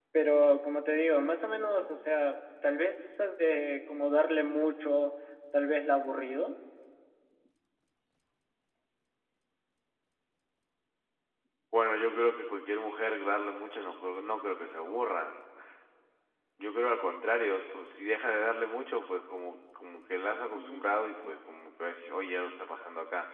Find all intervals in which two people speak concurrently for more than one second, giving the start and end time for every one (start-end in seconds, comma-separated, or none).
none